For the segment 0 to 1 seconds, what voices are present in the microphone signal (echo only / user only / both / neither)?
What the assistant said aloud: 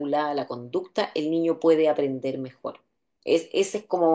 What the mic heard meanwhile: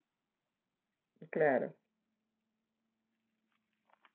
neither